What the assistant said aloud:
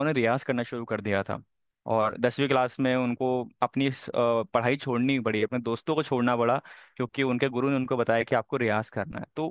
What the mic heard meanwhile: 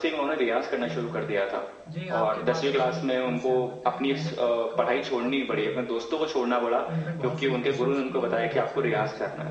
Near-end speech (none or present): present